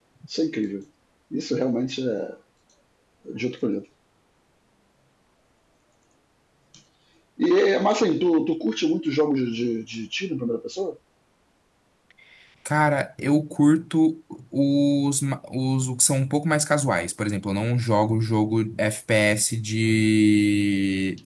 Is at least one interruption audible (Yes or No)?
No